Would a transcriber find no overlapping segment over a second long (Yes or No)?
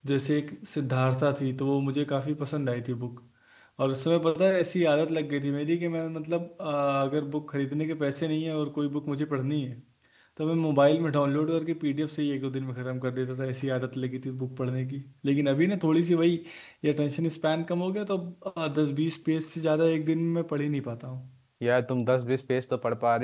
Yes